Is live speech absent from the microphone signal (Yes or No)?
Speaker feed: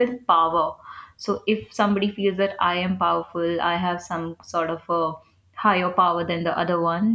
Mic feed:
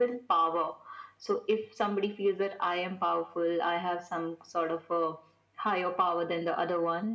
Yes